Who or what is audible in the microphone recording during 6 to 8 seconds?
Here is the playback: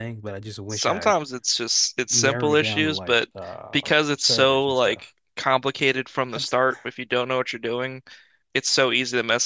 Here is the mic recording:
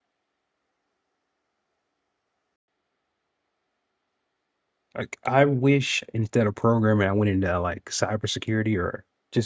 user only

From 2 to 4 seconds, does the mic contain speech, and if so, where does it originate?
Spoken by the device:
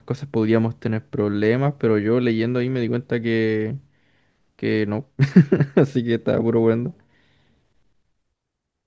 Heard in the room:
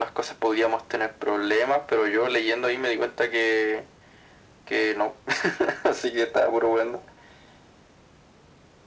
echo only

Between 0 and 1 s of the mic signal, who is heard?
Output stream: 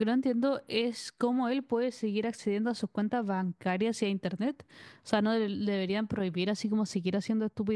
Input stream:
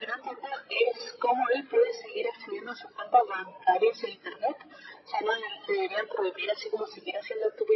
echo only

